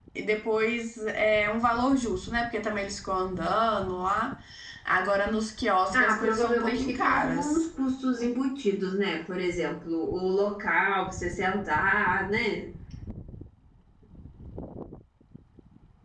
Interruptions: present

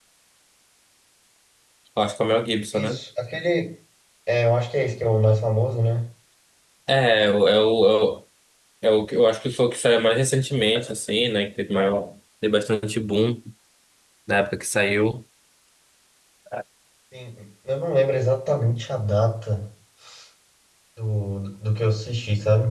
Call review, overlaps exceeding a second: none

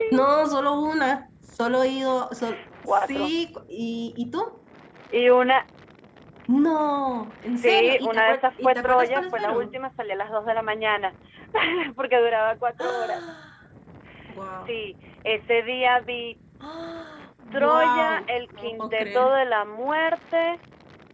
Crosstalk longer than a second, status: present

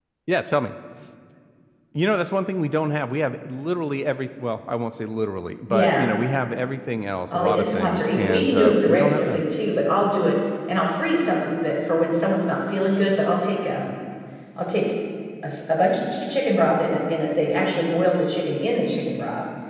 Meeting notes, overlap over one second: present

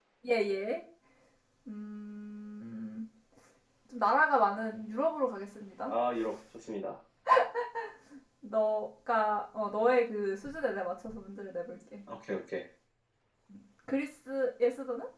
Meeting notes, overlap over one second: none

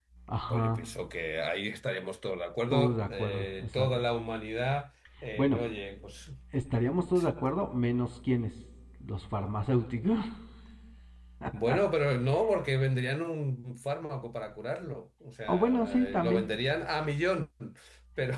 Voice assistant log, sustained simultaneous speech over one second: present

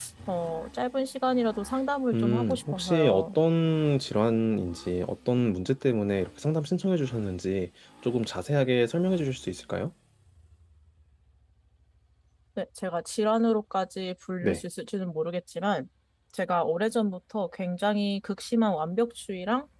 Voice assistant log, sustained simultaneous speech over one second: present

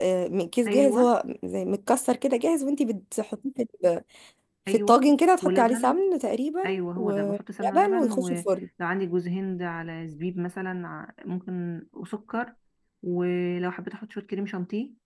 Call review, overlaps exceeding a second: present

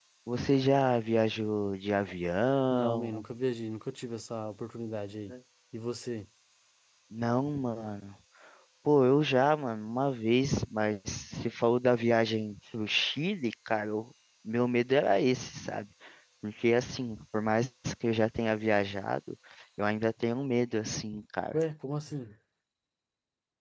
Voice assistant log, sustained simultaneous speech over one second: none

